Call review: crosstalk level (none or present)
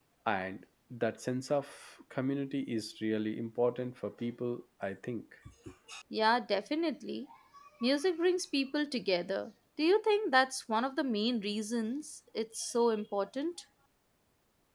none